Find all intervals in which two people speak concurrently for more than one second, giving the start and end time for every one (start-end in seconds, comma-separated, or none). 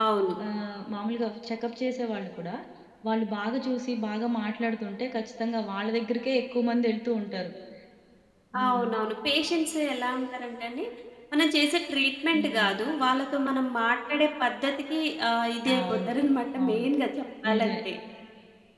none